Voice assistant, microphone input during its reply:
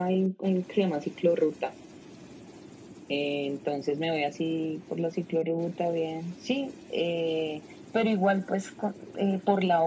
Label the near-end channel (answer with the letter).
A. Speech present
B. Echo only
B